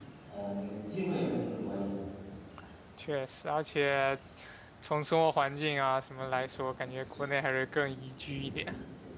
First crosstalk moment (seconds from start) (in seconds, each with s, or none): none